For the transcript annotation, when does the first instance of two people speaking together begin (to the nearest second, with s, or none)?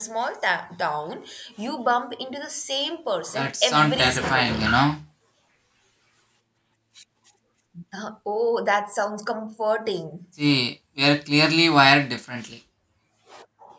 3 s